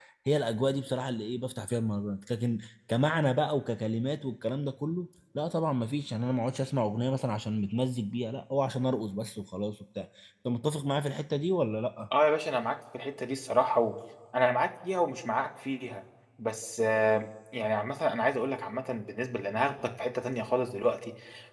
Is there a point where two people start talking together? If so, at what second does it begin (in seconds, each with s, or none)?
none